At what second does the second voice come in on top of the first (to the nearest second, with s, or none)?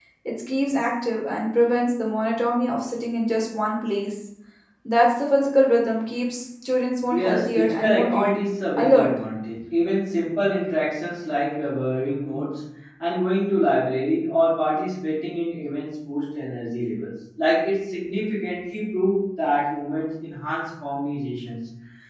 7 s